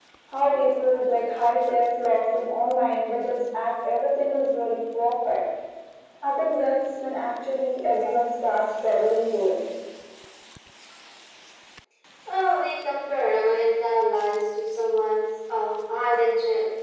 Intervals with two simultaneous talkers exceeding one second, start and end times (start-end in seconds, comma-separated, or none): none